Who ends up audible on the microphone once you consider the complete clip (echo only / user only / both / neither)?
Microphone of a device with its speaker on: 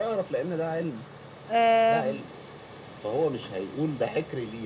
both